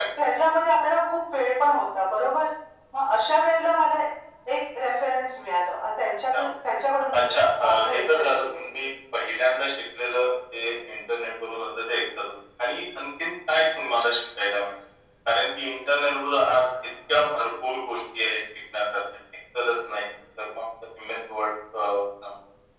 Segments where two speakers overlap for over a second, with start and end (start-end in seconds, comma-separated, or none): 7.2-8.6